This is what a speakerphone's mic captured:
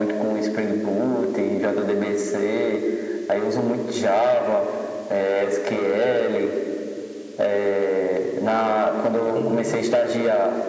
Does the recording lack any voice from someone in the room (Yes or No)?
No